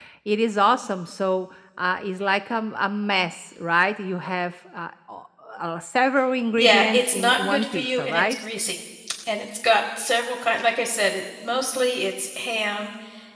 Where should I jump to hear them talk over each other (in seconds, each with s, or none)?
6.6 s